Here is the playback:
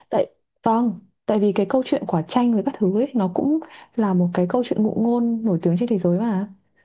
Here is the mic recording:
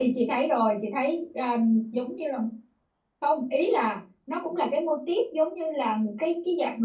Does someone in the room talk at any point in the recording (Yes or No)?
Yes